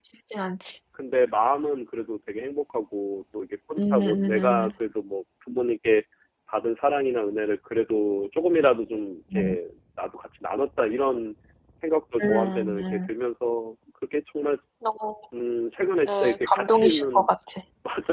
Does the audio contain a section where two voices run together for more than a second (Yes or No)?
Yes